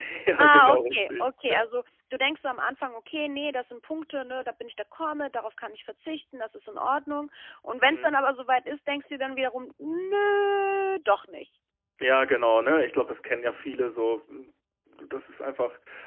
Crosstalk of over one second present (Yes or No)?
Yes